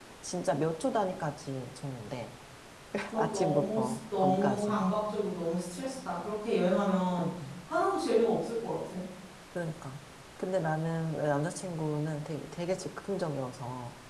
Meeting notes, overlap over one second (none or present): present